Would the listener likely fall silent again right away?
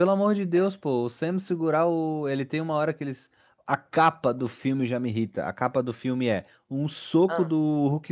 Yes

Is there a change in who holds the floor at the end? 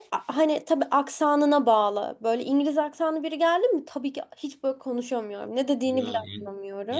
Yes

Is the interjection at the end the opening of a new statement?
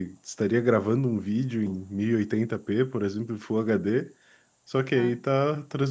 No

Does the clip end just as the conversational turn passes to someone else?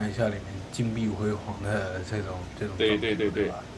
Yes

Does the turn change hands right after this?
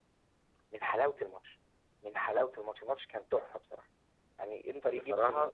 No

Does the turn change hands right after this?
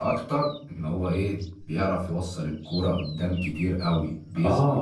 Yes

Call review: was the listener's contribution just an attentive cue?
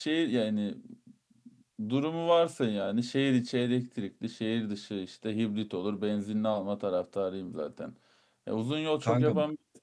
Yes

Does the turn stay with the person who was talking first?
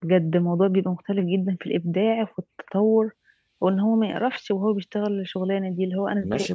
No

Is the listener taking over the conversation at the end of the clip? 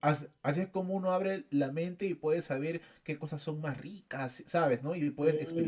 Yes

